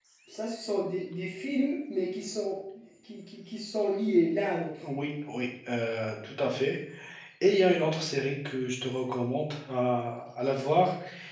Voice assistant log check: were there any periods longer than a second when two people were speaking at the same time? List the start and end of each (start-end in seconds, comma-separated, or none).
none